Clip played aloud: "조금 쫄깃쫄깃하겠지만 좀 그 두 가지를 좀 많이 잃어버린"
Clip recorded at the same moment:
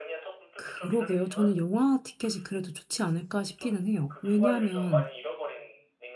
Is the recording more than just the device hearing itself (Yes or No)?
Yes